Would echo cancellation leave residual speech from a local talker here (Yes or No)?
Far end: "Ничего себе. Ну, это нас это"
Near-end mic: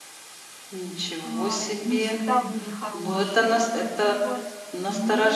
Yes